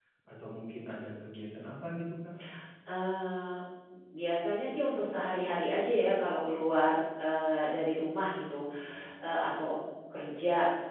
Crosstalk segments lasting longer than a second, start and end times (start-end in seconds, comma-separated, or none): none